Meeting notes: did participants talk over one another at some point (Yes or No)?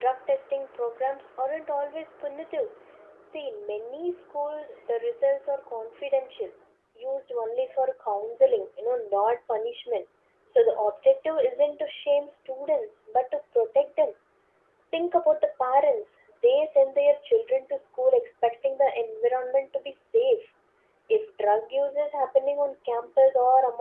No